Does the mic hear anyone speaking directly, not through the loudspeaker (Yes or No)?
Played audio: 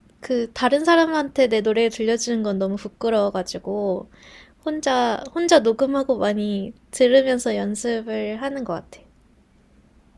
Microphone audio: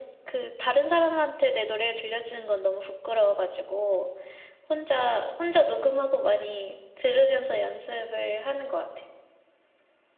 No